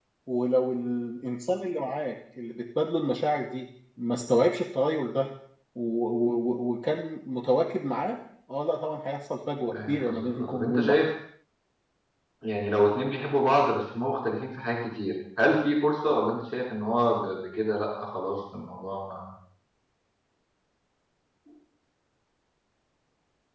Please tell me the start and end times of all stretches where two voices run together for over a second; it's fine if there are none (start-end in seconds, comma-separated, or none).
9.7-11.0